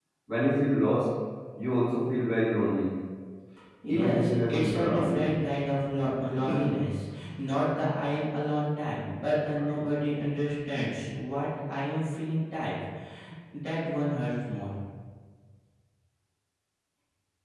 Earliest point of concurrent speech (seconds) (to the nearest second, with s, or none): 4 s